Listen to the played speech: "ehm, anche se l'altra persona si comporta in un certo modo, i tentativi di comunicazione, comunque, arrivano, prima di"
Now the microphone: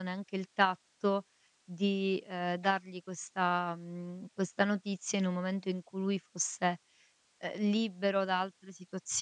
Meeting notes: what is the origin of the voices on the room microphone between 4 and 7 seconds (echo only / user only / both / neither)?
user only